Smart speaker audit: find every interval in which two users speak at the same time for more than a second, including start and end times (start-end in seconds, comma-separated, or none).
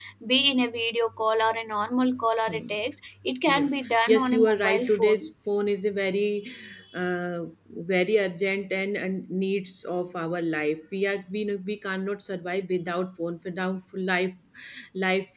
3.5-5.3